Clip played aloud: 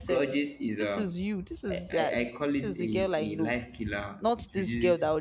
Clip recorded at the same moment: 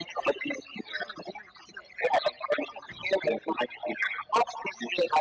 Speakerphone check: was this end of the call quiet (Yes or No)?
Yes